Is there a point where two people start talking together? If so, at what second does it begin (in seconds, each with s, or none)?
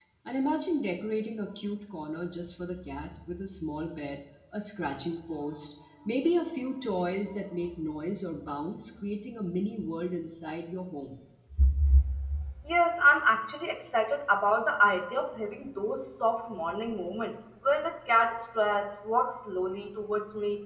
none